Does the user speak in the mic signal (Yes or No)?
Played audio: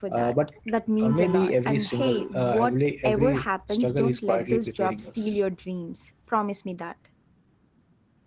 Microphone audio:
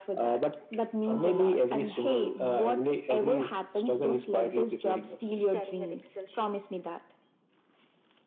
Yes